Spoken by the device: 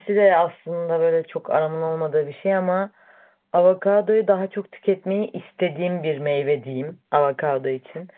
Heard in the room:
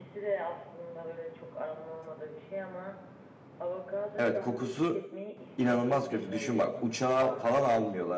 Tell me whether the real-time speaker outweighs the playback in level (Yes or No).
Yes